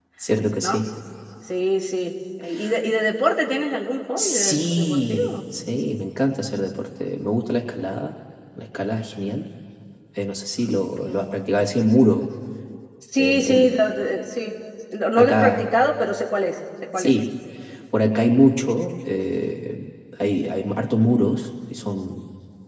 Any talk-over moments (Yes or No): Yes